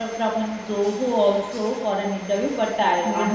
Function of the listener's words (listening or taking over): listening